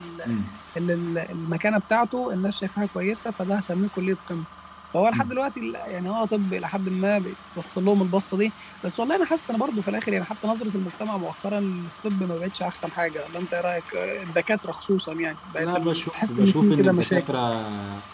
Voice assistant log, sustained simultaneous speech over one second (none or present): present